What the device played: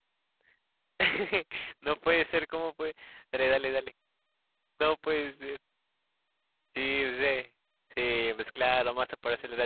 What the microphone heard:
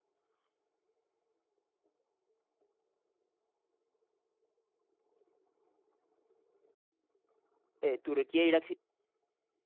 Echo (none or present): none